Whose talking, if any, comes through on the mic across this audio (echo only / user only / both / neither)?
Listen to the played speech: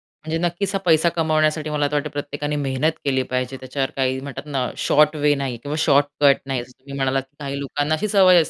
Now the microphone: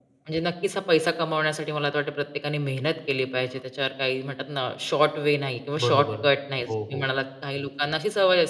both